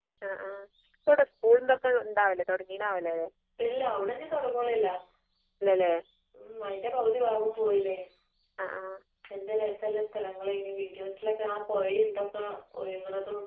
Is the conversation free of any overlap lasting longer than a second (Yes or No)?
Yes